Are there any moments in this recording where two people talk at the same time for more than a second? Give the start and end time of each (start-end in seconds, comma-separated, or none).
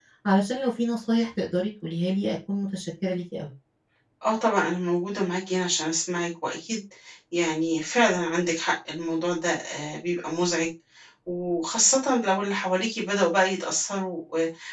none